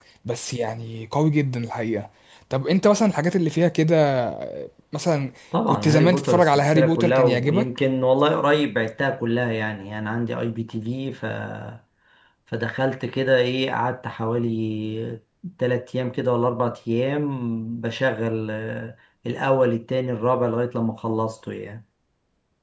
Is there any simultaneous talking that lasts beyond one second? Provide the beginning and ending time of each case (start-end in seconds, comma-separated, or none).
5.7-7.7